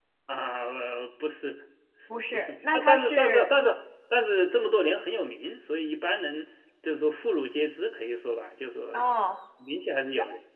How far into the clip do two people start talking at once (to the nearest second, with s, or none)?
2 s